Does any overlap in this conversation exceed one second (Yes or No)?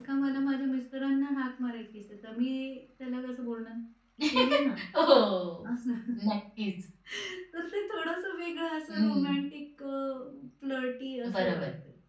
No